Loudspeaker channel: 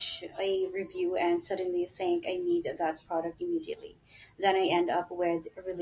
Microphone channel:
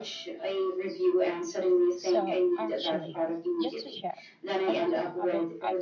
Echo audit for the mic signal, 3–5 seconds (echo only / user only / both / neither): both